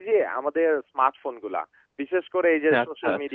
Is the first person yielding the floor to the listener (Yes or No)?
No